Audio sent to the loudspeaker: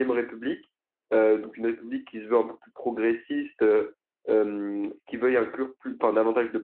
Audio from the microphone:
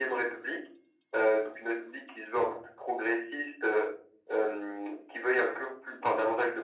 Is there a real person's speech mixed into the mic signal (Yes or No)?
No